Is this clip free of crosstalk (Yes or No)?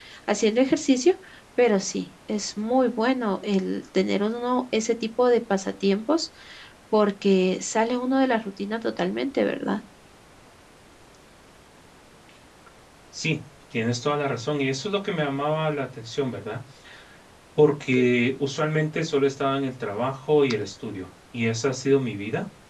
Yes